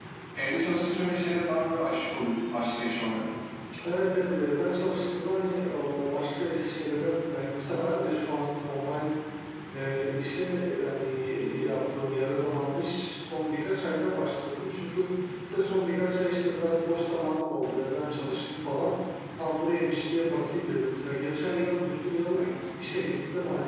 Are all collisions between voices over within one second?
Yes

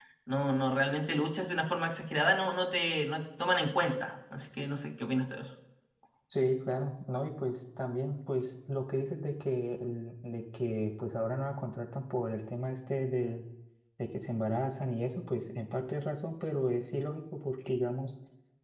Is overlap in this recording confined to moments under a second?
Yes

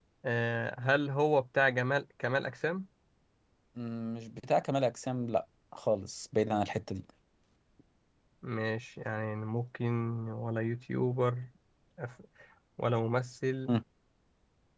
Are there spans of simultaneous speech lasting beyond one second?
No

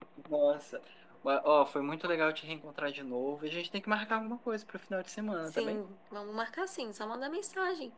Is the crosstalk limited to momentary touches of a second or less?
Yes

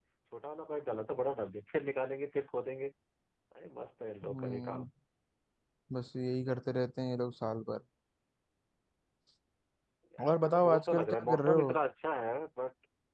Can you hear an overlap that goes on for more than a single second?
Yes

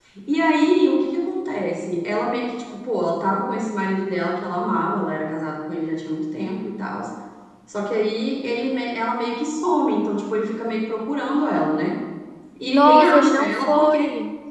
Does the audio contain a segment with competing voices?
Yes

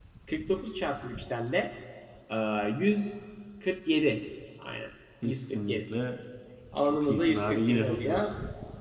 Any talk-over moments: Yes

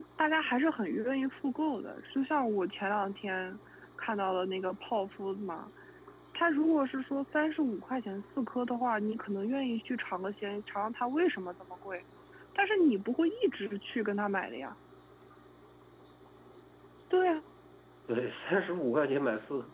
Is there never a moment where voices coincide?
Yes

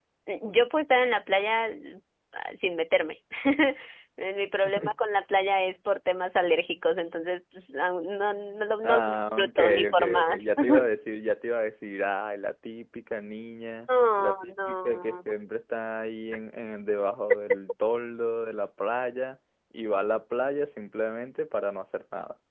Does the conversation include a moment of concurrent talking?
Yes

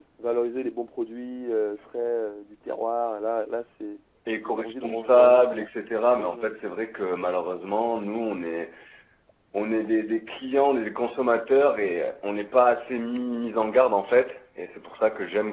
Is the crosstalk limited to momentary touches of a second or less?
No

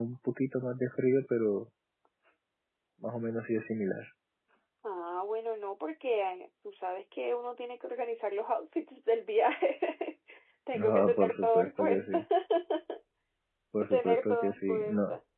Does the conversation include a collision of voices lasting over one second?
Yes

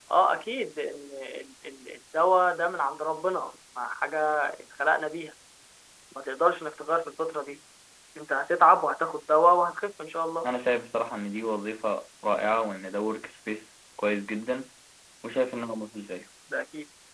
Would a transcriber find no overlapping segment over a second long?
Yes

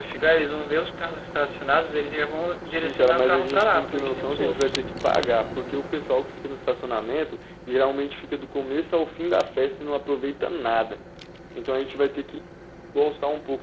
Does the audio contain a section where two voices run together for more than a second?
Yes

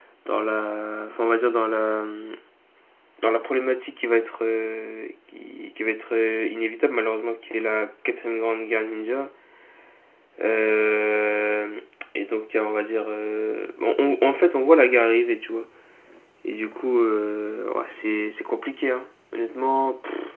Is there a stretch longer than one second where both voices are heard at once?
No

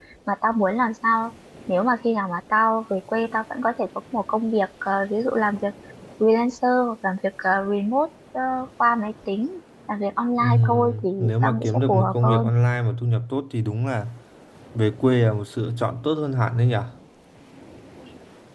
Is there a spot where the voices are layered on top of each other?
Yes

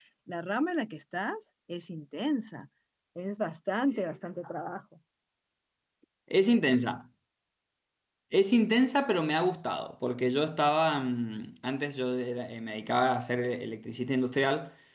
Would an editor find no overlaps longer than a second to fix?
Yes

